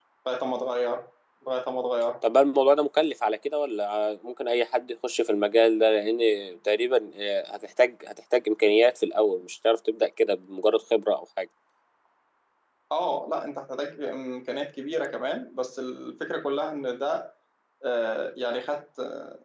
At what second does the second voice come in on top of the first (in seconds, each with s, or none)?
none